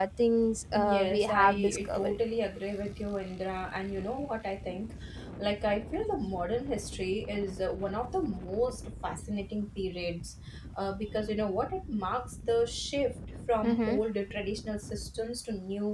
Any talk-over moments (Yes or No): Yes